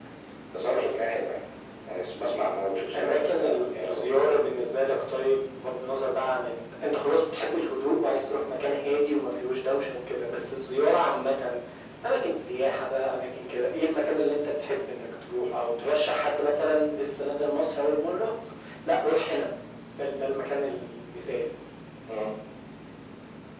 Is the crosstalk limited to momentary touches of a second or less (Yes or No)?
No